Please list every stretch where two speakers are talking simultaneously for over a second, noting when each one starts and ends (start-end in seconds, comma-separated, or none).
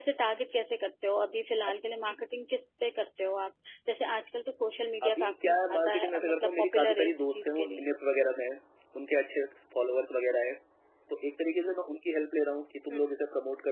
5.0-7.9